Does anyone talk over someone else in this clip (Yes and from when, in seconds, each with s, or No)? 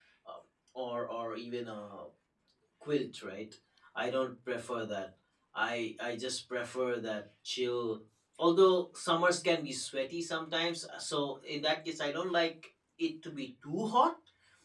No